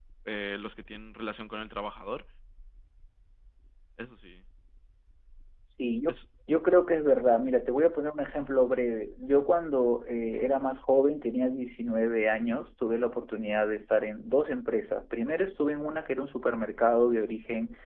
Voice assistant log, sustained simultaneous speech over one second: none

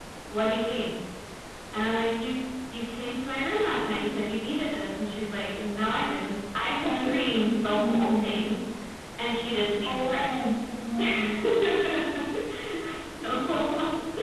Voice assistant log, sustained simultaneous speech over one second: present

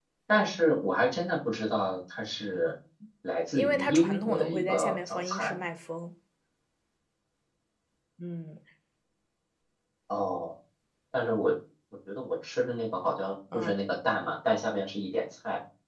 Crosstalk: present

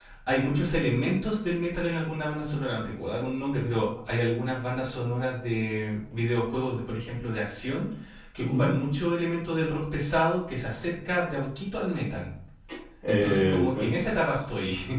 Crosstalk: present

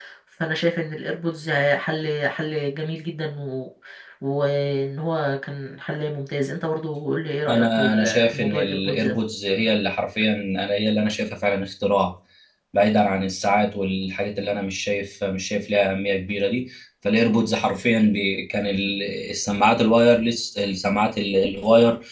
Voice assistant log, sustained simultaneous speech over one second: present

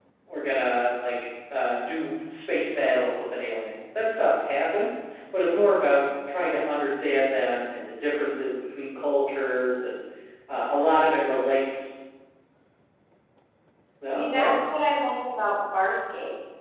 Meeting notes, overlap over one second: none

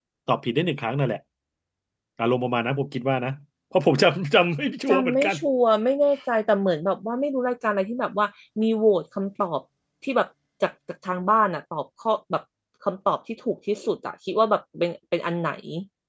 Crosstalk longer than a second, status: none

